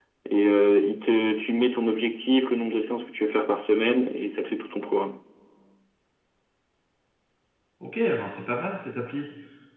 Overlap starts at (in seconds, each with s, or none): none